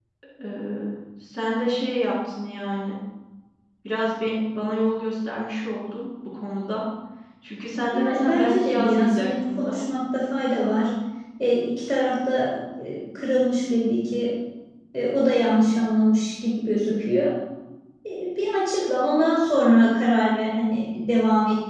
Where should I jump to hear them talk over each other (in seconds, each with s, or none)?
7.9 s